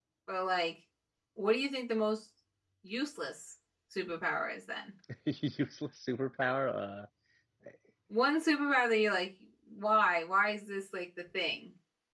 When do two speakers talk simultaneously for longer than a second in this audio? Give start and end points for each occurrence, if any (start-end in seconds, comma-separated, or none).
none